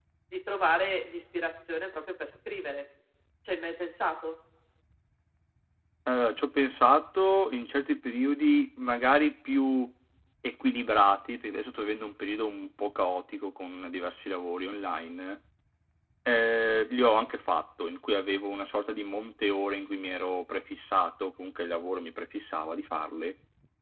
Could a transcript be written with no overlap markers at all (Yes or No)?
Yes